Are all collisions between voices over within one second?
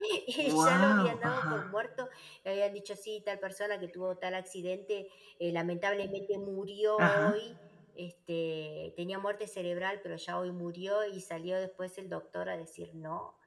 No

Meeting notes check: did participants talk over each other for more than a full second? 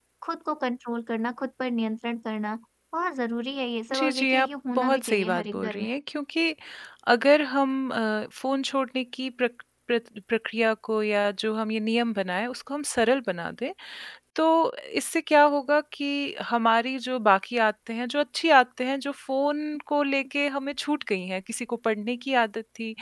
Yes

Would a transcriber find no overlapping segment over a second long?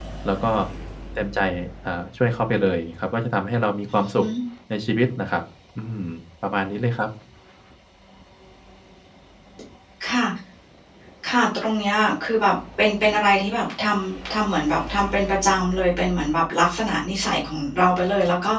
Yes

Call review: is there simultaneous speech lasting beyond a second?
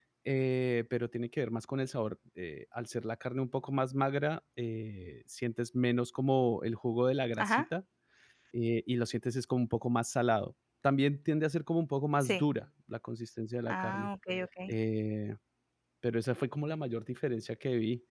No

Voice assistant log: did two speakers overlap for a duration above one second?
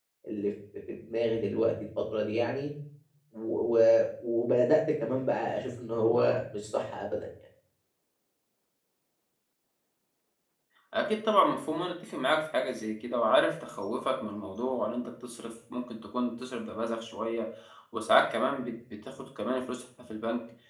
No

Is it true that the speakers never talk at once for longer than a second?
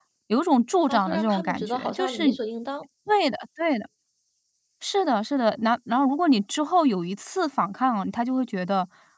No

